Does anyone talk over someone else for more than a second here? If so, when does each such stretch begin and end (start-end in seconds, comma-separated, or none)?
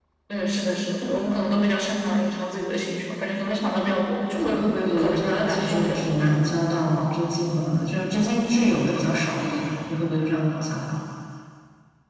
5.0-6.2